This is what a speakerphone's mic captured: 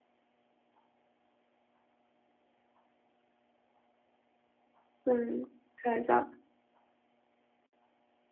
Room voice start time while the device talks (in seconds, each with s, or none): 5.0 s